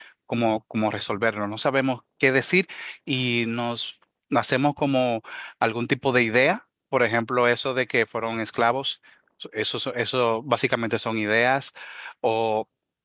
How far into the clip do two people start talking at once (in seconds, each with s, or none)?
none